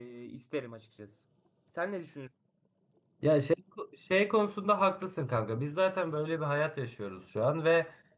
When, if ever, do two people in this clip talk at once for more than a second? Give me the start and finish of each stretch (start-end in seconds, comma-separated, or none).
none